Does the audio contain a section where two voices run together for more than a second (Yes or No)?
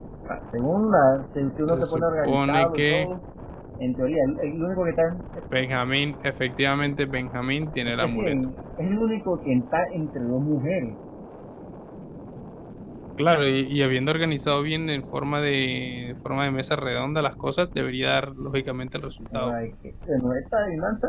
Yes